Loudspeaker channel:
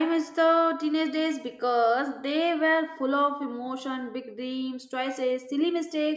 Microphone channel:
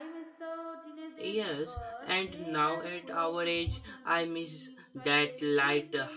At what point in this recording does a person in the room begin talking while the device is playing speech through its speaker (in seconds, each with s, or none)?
1.2 s